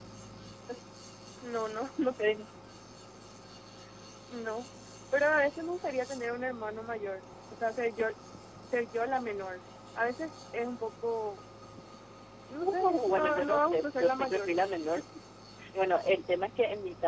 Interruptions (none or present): present